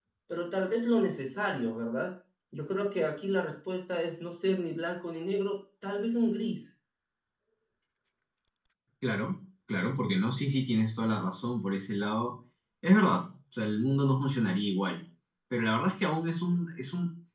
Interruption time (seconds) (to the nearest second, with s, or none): none